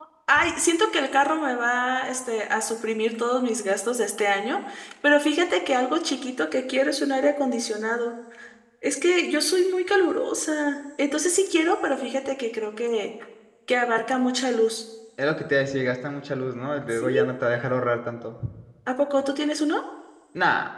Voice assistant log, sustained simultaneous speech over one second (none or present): none